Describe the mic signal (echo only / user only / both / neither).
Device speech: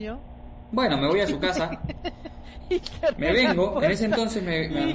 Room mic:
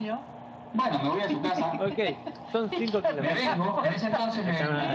both